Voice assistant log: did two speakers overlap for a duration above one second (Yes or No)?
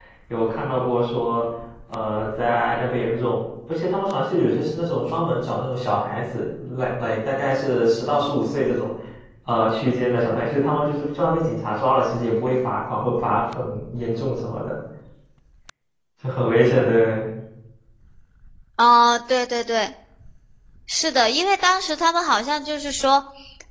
No